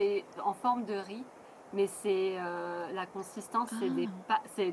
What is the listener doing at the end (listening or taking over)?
listening